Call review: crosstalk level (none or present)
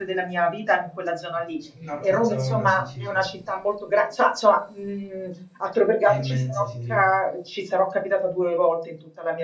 present